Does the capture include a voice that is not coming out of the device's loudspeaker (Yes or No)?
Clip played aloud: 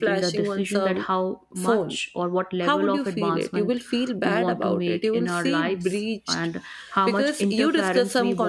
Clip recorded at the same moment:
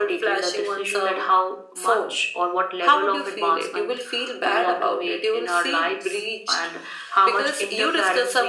No